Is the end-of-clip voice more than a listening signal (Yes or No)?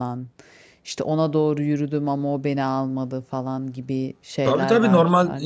Yes